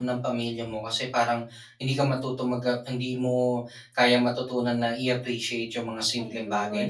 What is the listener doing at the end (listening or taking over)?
listening